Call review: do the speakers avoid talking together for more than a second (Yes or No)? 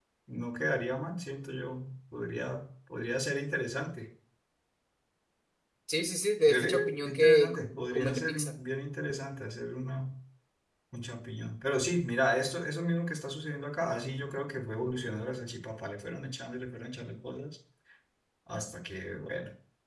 No